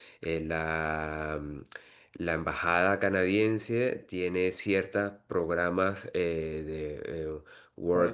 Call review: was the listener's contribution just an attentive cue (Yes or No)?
Yes